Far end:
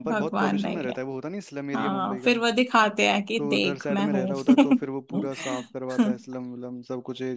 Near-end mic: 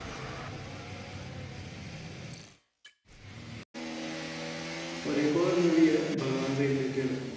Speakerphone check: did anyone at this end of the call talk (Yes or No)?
Yes